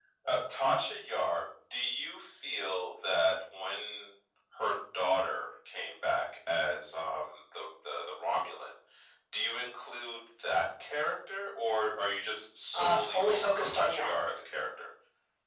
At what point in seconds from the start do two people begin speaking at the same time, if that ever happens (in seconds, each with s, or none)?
12.7 s